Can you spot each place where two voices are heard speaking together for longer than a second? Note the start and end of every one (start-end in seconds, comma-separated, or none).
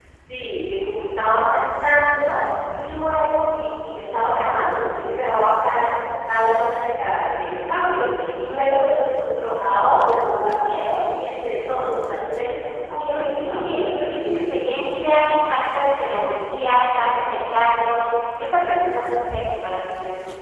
13.0-14.2